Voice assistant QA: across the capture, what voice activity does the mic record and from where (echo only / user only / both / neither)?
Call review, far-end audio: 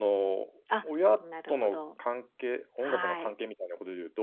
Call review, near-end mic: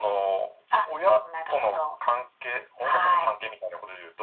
echo only